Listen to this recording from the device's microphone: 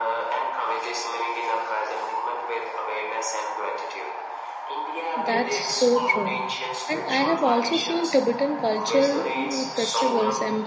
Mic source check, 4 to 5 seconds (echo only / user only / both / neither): echo only